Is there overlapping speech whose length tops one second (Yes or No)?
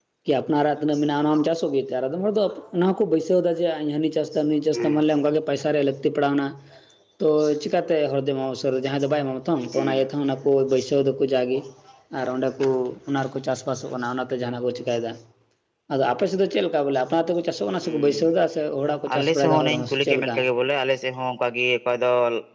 Yes